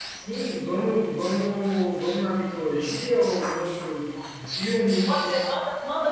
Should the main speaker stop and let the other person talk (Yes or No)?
Yes